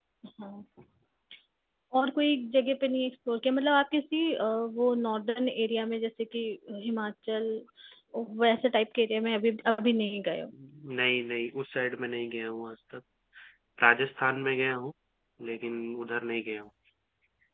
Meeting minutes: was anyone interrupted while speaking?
No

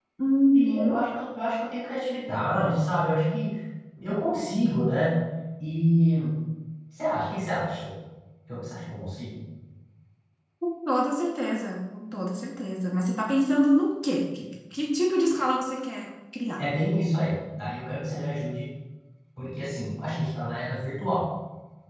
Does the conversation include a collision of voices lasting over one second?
No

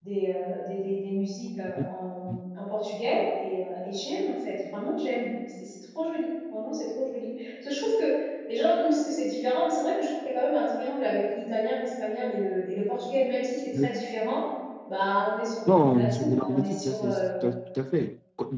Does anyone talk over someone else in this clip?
Yes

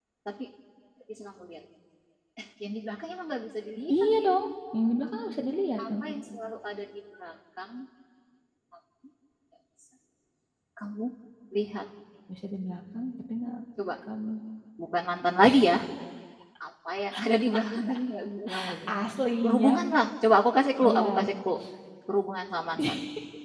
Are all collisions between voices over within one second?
Yes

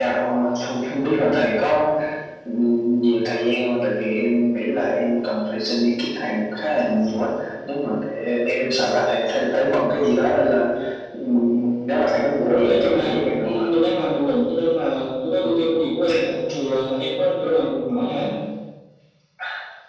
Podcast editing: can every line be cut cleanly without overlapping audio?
No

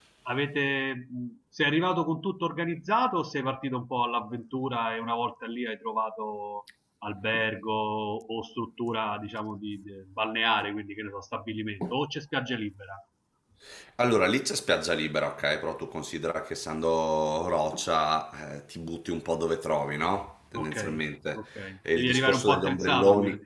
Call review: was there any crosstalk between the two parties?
Yes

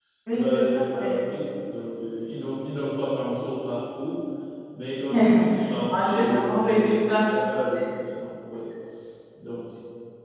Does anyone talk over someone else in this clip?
Yes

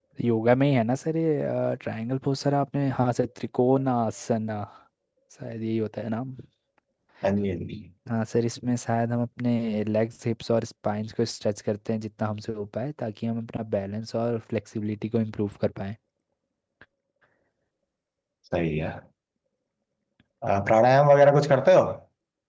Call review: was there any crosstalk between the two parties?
No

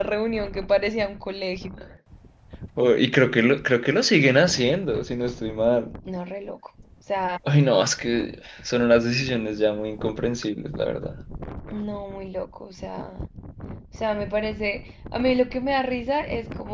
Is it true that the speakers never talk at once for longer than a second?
Yes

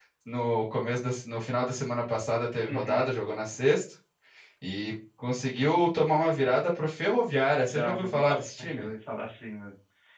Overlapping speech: Yes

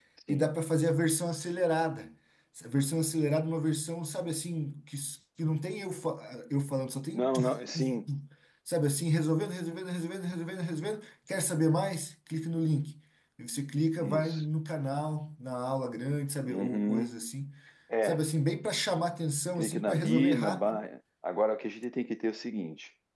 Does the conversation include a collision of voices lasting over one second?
Yes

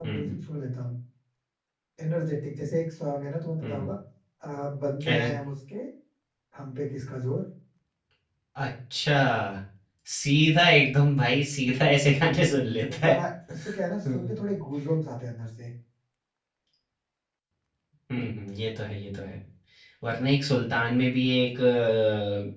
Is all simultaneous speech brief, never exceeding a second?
Yes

